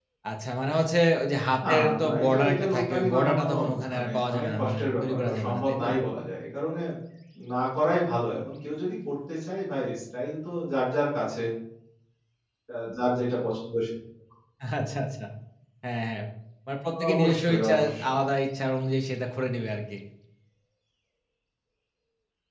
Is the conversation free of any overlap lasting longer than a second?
No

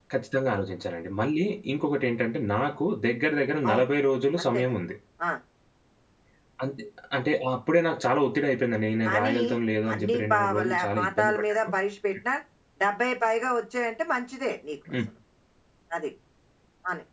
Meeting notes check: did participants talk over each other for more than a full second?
Yes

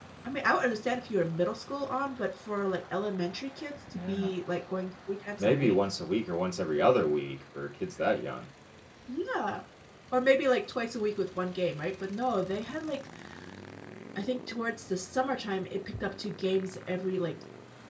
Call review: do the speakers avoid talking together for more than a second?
Yes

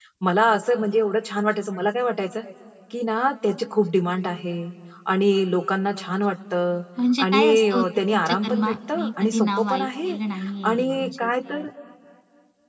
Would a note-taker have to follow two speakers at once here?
Yes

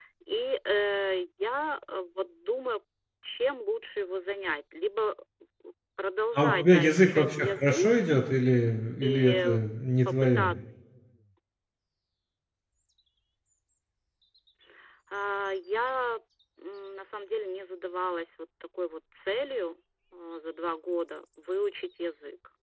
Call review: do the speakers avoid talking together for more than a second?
No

